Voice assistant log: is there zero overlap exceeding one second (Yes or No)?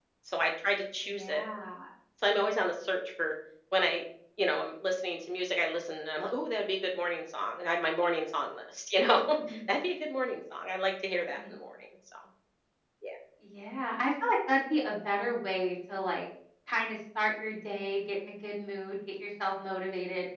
Yes